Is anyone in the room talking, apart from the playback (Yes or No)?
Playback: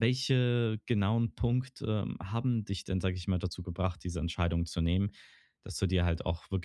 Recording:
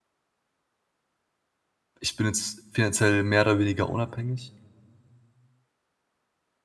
Yes